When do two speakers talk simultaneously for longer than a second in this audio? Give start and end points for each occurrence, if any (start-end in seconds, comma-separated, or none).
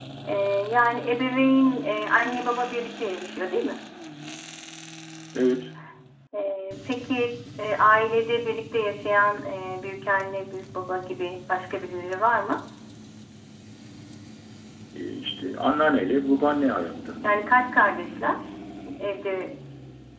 none